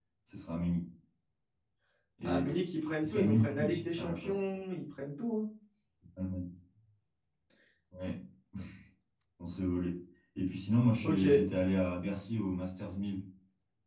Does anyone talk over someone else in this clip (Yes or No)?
Yes